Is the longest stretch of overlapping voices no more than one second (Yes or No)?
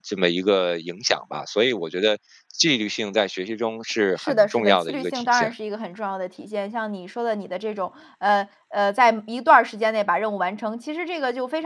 No